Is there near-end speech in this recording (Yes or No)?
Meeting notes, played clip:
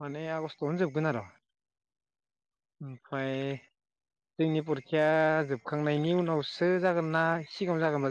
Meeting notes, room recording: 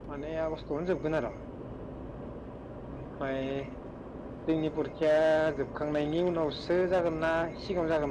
No